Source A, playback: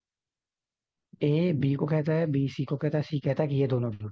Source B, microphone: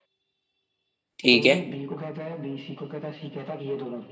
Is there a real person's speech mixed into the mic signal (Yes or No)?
Yes